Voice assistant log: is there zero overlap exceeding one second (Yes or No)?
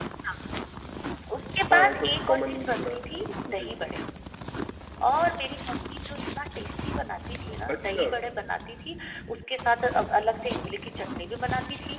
No